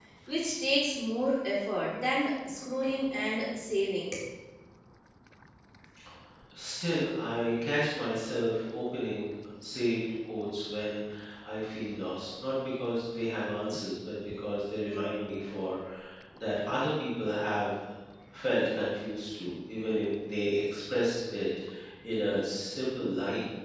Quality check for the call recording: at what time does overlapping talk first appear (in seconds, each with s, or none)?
none